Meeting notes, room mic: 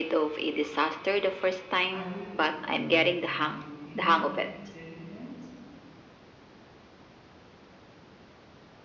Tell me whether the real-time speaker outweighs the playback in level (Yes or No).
No